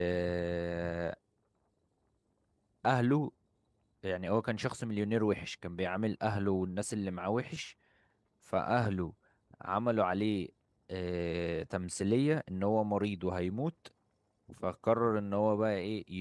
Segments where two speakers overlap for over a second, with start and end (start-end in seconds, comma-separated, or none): none